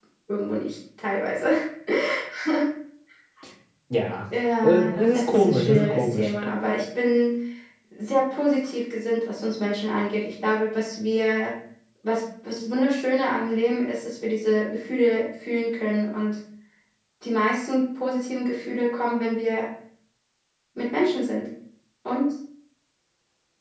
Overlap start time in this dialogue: 4.6 s

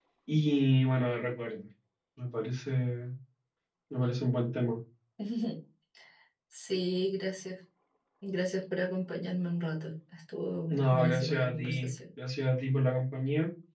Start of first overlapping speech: 10.7 s

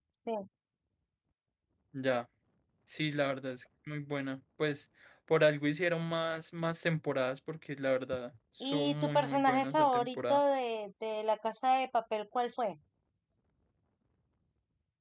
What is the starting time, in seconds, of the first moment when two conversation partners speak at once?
8.6 s

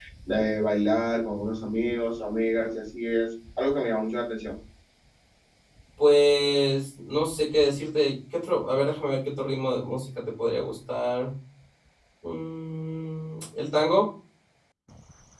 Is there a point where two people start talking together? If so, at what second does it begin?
none

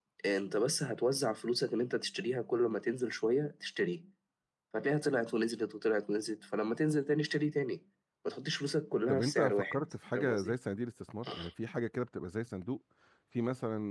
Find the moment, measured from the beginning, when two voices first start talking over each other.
9.1 s

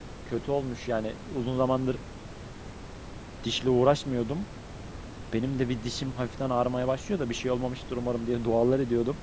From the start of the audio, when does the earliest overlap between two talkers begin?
none

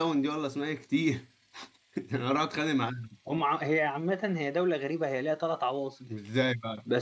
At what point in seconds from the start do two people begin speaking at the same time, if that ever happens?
none

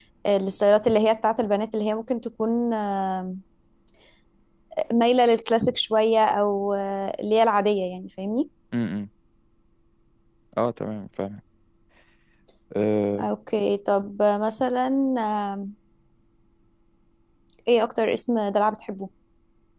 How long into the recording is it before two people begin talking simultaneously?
none

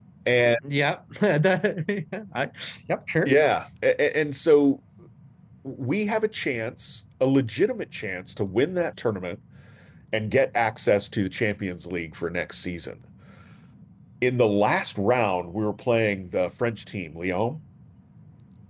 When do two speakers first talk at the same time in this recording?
none

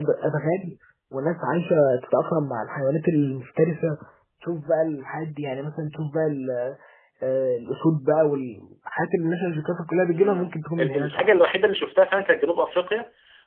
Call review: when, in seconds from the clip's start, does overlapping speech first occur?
10.1 s

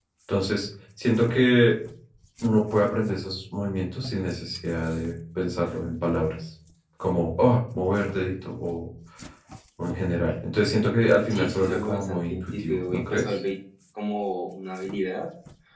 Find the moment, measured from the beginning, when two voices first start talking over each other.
11.3 s

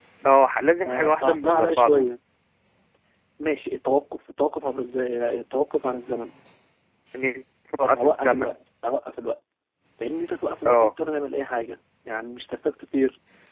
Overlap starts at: 0.8 s

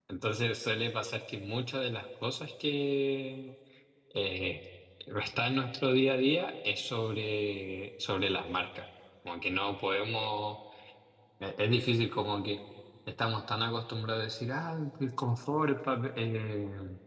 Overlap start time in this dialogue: none

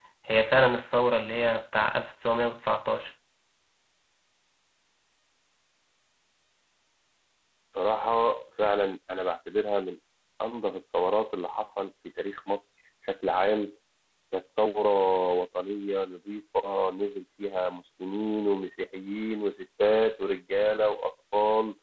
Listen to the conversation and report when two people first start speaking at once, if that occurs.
none

